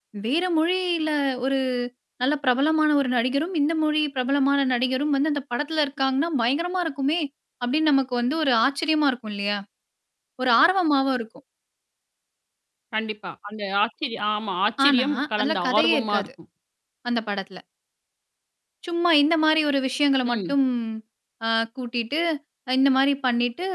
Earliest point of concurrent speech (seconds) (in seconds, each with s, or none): 14.8 s